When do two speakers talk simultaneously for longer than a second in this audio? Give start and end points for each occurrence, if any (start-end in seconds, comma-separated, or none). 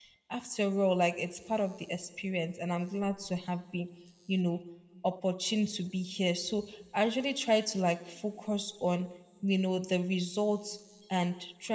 none